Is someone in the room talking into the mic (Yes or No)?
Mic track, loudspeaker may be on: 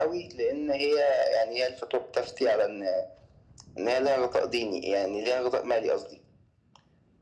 No